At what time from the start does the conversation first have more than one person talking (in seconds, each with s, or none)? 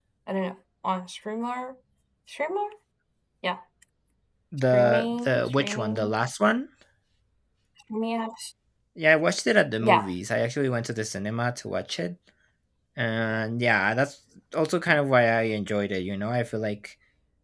4.7 s